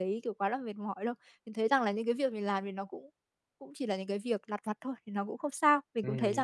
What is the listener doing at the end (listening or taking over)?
taking over